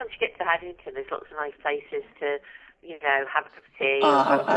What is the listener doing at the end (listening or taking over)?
taking over